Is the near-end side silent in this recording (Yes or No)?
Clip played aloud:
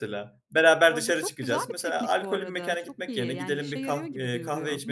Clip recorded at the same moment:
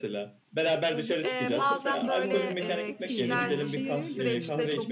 No